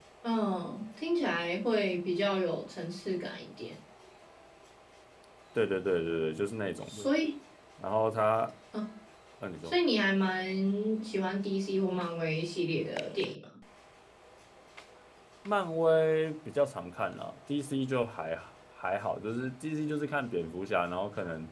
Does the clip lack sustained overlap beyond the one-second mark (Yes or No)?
Yes